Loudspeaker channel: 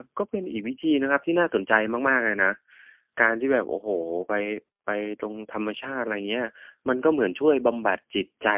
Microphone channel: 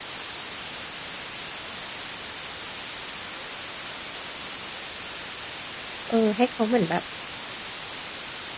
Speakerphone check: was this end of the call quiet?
No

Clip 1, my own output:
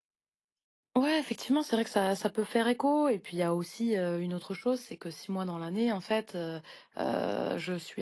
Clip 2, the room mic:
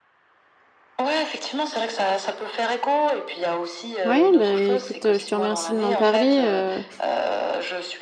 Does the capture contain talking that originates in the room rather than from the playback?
Yes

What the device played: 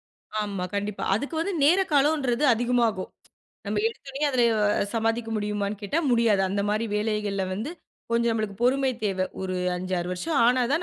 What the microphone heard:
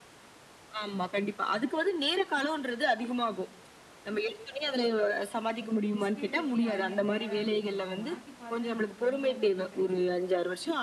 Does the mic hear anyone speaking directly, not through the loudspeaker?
Yes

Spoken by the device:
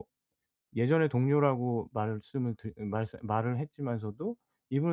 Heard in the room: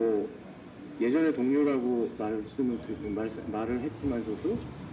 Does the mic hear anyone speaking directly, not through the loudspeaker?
No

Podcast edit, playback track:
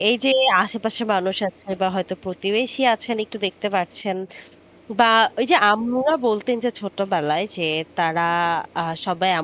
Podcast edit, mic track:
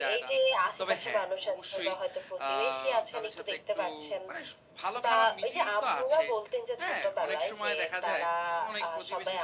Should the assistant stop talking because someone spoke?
Yes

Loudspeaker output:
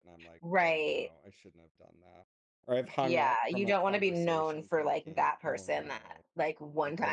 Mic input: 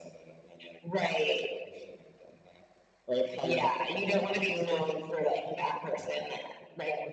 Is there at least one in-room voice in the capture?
No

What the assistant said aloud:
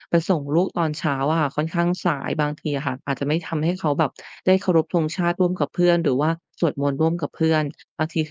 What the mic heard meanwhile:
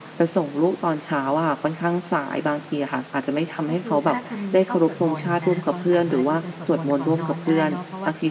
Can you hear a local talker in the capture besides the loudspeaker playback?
Yes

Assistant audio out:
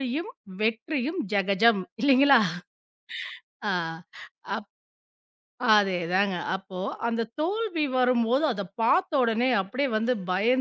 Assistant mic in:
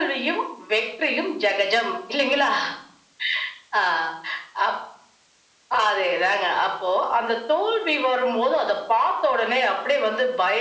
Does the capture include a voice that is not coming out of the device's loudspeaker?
No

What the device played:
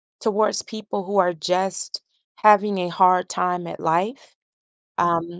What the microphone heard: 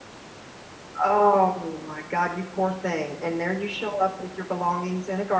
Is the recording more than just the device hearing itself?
Yes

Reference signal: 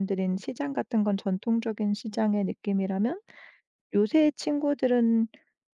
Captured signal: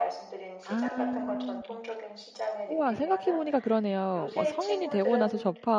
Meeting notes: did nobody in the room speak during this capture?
No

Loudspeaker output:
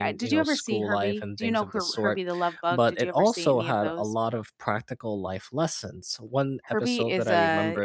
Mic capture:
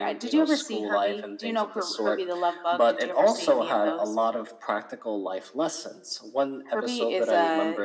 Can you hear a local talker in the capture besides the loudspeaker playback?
No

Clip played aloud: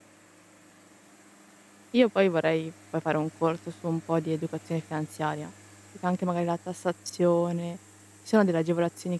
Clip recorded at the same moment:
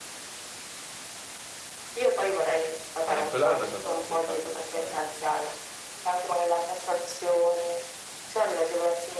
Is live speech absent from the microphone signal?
No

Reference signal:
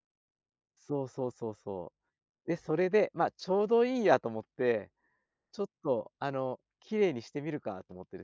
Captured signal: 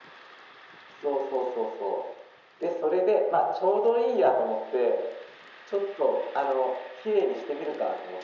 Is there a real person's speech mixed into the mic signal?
No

